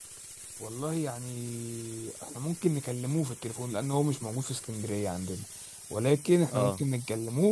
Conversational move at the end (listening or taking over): listening